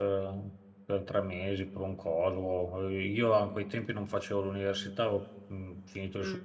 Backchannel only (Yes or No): Yes